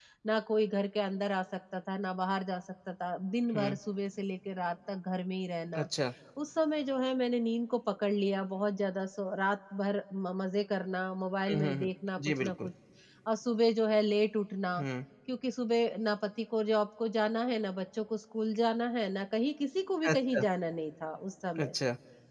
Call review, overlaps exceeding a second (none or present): none